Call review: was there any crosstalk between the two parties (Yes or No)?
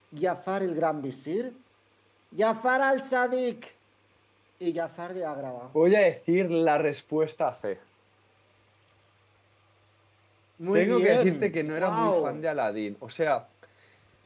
Yes